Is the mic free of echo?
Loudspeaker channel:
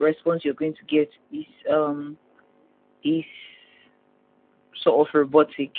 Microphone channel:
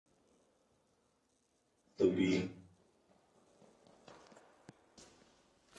Yes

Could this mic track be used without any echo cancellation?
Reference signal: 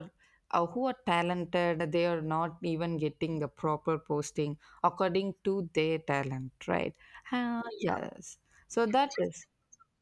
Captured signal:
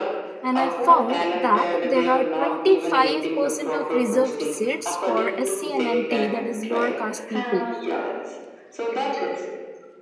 No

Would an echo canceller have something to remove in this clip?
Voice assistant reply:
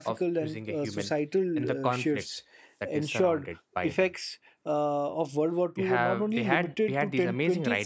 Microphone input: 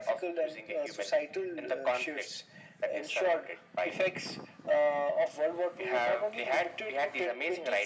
Yes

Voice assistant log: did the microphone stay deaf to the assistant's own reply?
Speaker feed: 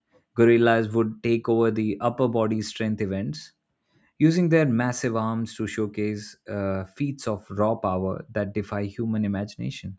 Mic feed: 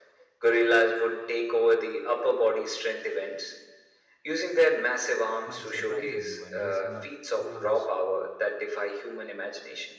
No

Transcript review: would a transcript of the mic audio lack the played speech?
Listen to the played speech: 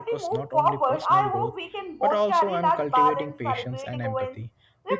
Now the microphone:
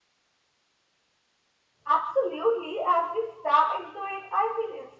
Yes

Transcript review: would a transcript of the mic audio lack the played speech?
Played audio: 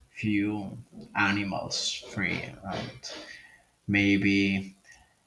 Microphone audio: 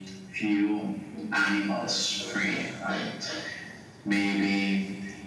No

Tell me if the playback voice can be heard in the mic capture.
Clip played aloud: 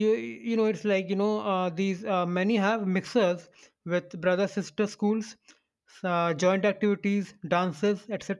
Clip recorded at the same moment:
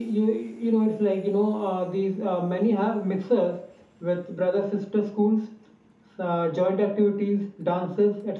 Yes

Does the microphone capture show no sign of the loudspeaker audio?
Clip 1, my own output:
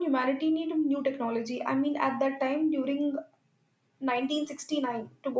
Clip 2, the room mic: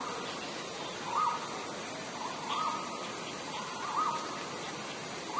Yes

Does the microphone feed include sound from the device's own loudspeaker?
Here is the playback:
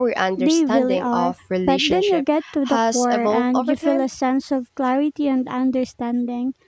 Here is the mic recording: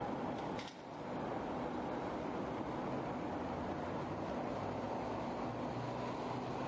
No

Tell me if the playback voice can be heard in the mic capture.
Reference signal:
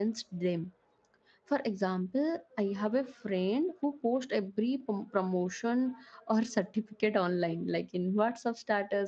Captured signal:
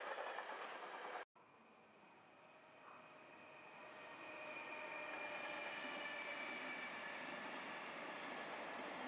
No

